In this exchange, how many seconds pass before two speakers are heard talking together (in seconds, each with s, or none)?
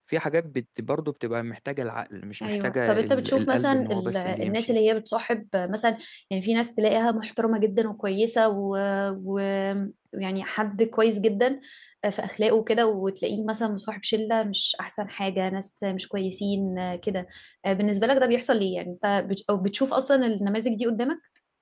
2.4 s